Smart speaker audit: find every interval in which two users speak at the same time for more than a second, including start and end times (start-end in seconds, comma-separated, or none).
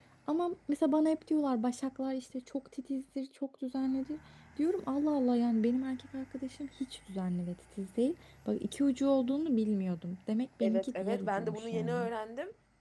10.6-12.1